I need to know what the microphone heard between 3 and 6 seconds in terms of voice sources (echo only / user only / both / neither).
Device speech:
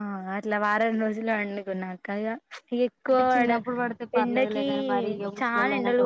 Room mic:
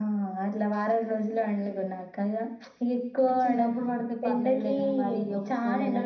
echo only